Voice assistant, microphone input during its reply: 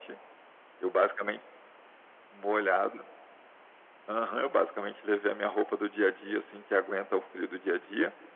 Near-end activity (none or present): none